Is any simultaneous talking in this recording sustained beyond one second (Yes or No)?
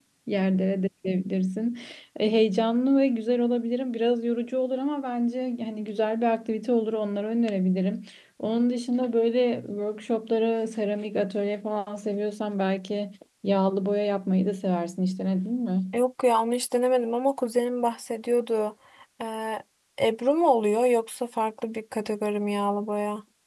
No